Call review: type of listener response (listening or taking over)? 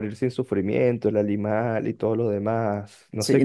taking over